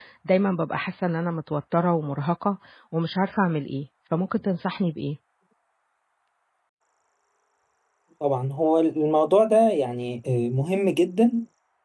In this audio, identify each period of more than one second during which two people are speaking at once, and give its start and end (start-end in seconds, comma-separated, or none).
none